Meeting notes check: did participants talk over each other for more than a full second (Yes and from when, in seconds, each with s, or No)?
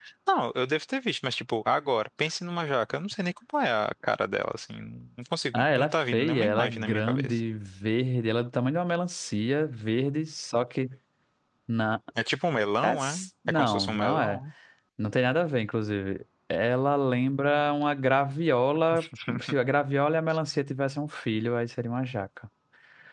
Yes, from 5.5 s